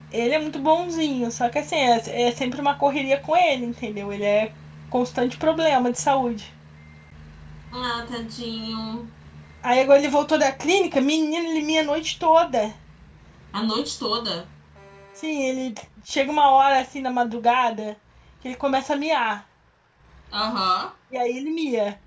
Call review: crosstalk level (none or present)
none